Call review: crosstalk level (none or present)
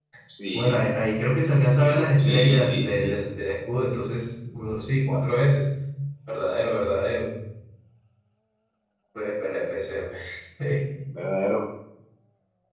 present